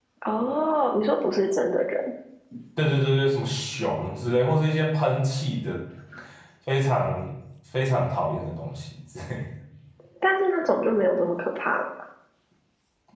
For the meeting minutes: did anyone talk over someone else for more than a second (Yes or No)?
No